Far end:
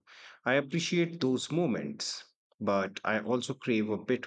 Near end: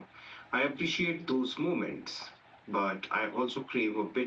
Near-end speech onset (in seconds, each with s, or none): none